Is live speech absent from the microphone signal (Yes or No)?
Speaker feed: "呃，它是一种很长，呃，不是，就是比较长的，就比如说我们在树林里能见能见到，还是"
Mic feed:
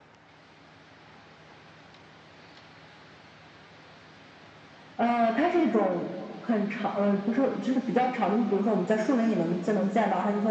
Yes